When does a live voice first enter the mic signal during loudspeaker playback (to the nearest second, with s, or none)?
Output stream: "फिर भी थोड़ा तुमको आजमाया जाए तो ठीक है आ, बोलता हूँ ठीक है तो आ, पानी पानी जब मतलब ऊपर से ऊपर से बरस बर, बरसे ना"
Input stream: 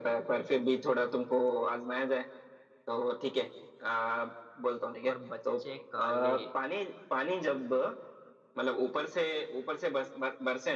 5 s